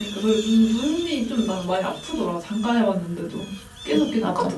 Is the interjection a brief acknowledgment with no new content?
Yes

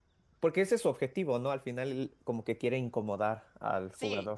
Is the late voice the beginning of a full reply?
Yes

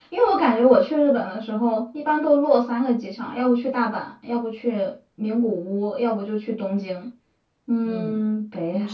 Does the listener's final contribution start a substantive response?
Yes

